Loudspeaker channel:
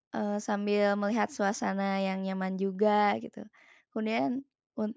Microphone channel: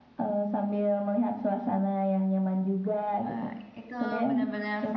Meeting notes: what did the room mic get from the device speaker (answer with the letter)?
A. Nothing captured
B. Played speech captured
B